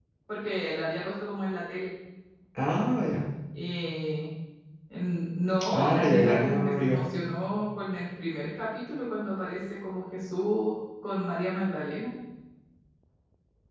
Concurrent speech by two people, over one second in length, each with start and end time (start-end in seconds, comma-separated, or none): 5.7-7.1